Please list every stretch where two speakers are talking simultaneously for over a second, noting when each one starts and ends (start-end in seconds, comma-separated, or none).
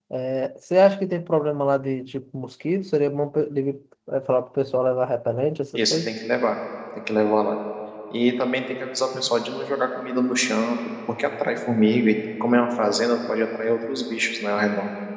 none